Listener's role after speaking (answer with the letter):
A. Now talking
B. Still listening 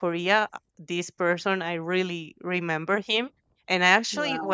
B